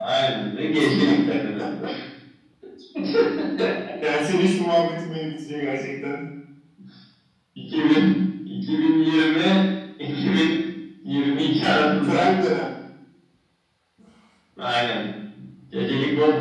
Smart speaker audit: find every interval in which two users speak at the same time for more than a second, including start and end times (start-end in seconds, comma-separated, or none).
none